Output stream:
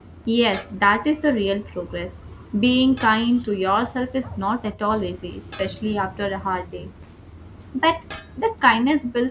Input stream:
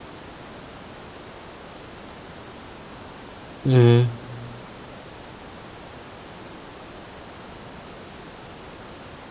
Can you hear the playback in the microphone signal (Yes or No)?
No